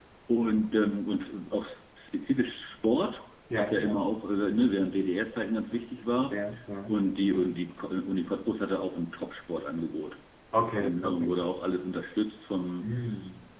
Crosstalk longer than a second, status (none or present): none